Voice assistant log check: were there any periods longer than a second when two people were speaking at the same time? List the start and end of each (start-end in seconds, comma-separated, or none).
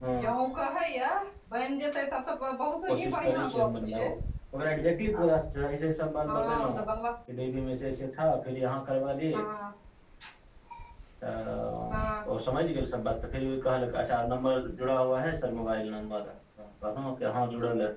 2.9-4.1